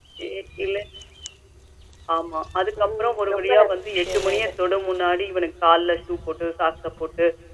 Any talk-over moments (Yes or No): Yes